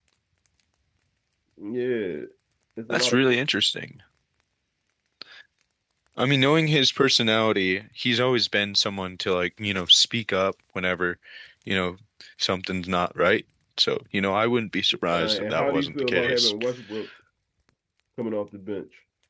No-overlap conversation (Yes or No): No